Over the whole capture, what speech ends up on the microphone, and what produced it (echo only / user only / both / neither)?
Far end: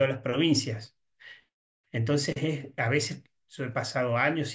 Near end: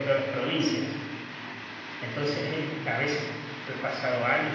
echo only